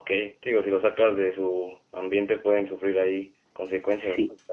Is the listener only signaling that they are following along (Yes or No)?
No